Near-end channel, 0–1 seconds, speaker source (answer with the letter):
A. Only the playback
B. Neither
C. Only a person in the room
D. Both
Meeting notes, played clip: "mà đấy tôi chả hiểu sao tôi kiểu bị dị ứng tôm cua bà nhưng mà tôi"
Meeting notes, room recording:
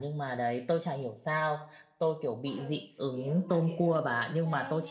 A